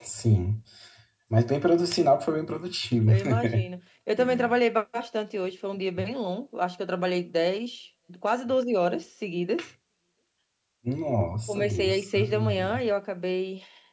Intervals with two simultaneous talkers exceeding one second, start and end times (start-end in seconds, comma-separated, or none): 11.5-12.8